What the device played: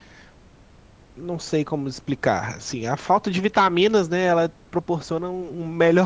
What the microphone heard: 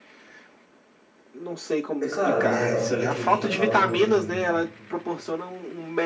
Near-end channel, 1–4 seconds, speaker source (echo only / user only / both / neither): both